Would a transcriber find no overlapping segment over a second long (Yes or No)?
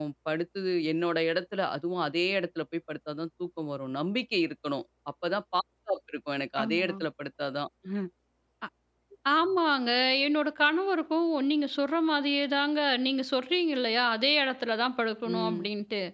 Yes